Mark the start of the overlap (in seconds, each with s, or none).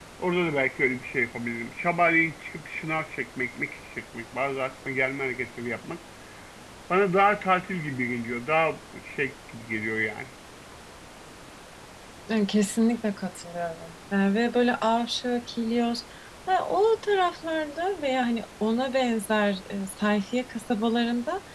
none